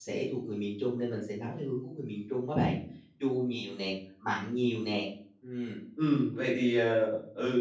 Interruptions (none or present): none